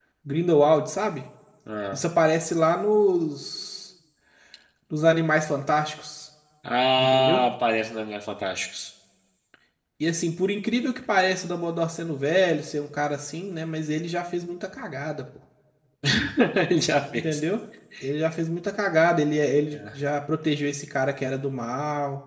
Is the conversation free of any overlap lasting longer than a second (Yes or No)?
Yes